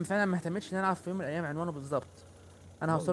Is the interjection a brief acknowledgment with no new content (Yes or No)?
No